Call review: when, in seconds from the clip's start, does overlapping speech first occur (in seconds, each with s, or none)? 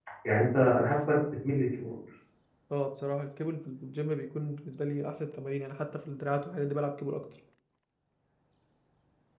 none